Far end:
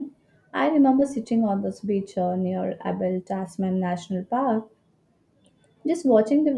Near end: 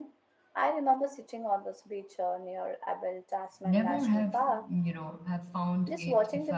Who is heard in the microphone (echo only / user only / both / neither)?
both